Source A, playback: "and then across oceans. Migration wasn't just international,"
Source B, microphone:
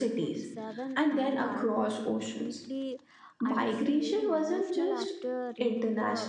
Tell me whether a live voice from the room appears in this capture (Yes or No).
Yes